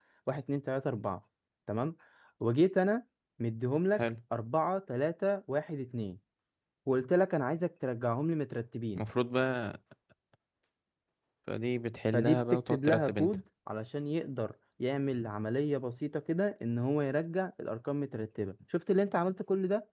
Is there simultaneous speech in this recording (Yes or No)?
Yes